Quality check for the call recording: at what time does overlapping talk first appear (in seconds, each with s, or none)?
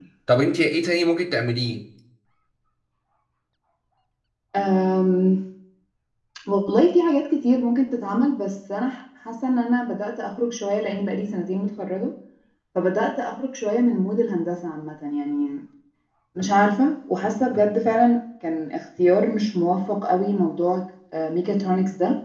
none